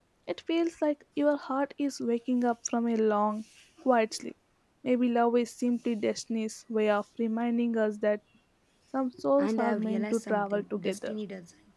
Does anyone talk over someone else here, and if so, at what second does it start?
9 s

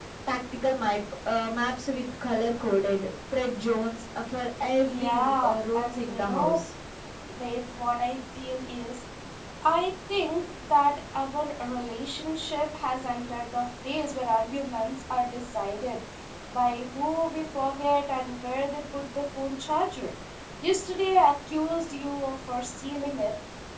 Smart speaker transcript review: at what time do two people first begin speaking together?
5 s

